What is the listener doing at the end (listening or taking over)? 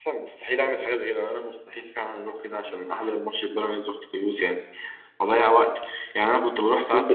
listening